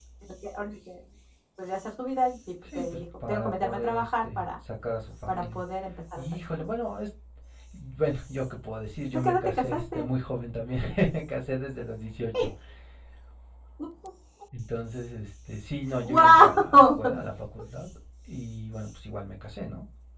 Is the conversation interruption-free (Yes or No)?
No